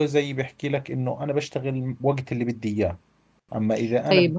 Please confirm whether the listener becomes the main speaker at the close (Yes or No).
No